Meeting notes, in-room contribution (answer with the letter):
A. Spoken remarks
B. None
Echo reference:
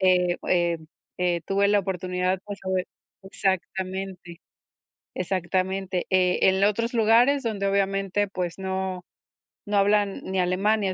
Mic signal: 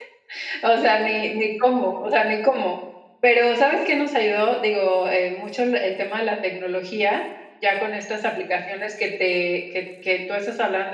A